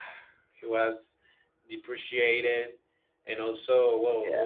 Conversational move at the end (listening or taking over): listening